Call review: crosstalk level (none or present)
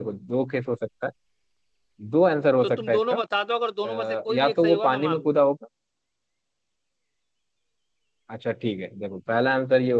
present